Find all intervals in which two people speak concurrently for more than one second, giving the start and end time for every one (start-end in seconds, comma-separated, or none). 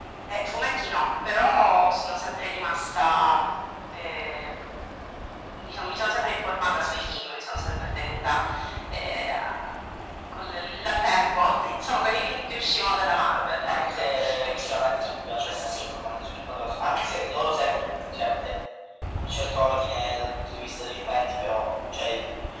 13.7-15.7